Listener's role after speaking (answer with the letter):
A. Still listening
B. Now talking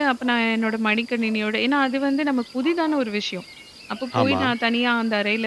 A